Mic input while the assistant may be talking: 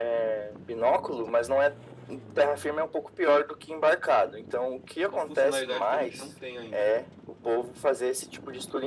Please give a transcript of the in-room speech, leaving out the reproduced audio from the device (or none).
uma funcionalidade que a gente não tem ainda.